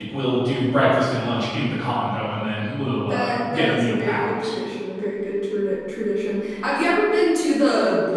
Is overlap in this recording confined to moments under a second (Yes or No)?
No